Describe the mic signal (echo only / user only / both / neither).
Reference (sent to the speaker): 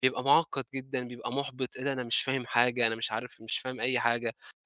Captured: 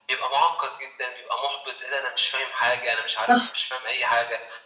both